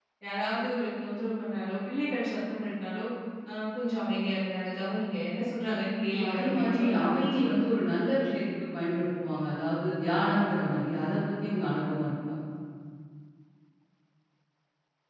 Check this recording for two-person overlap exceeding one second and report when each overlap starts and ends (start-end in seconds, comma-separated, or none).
6.1-7.6